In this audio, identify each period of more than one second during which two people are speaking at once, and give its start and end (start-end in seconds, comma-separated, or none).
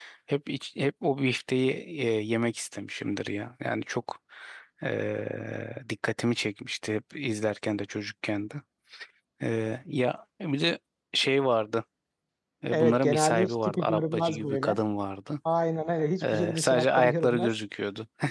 12.7-14.8, 16.2-17.5